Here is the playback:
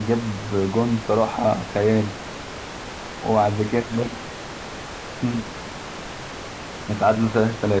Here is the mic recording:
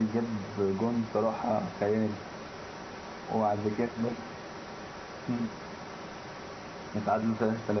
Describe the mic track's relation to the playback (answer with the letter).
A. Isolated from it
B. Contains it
B